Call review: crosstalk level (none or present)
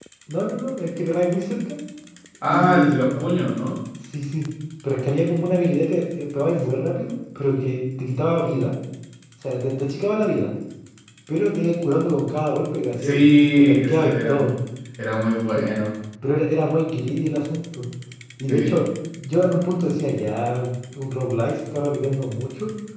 present